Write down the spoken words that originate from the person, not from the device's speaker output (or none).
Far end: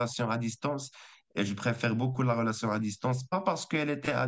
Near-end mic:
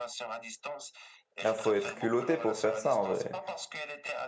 Ah, faut être culotté pour faire ça en vrai.